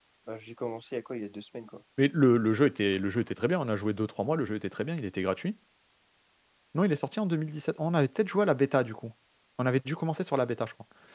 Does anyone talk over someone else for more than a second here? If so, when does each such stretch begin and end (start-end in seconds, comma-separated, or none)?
none